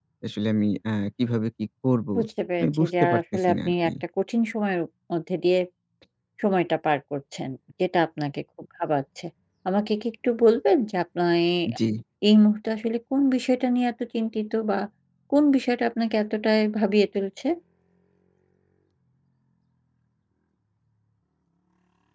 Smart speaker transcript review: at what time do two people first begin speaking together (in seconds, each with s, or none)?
2.6 s